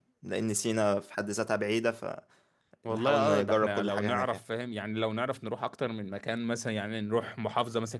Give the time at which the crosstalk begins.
2.9 s

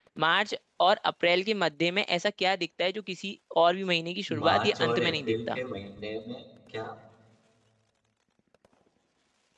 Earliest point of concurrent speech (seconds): 4.3 s

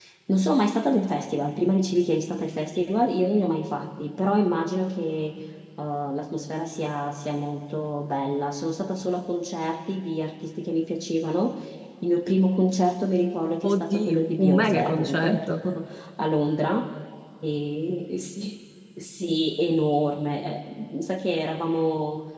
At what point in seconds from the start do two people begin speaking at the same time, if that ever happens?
13.6 s

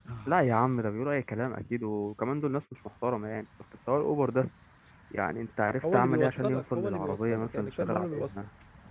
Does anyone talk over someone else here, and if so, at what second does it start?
5.8 s

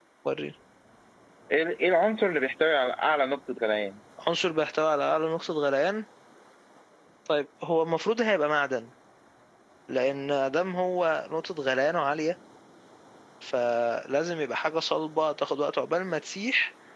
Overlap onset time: none

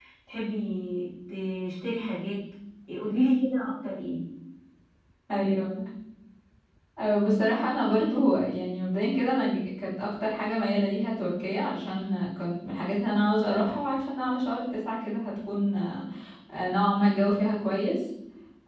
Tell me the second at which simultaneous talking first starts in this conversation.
none

